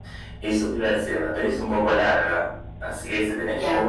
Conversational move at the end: listening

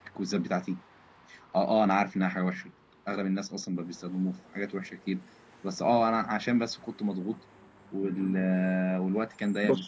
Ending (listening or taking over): listening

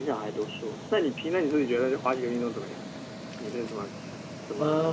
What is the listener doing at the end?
taking over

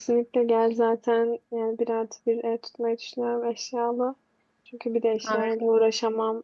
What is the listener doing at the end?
listening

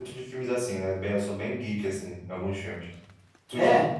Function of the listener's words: listening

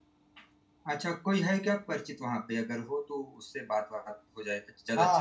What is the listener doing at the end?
taking over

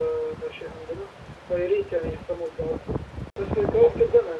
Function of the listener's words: listening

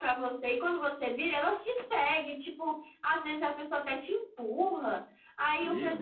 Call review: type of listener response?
listening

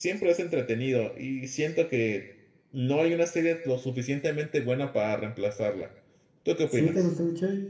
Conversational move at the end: taking over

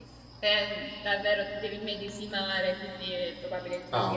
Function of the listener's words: taking over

